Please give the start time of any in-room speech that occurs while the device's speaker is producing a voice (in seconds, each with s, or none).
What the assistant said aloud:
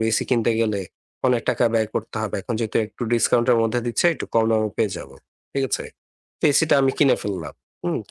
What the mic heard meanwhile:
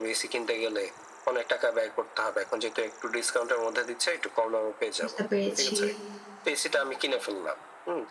5.0 s